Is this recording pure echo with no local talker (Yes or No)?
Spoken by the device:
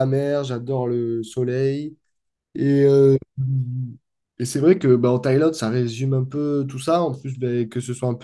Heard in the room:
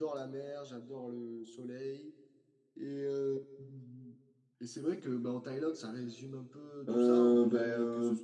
No